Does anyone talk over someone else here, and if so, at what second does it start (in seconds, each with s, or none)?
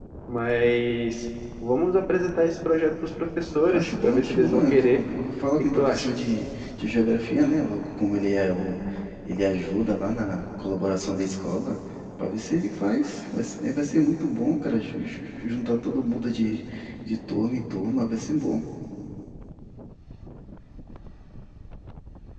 3.7 s